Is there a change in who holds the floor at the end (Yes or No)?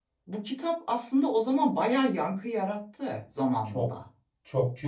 Yes